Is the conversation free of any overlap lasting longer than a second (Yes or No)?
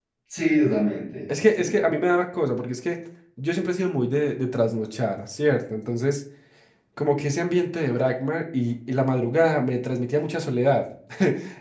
Yes